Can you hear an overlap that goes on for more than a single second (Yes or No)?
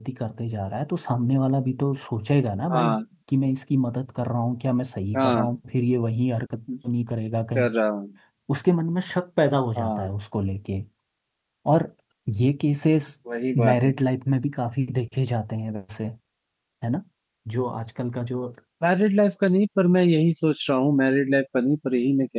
No